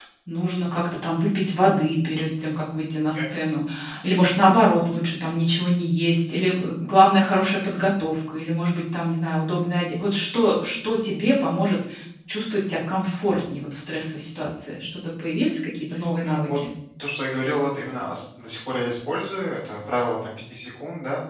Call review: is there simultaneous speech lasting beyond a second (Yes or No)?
No